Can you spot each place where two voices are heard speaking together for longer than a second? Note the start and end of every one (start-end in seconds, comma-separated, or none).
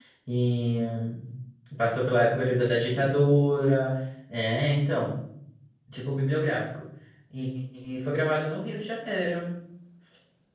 none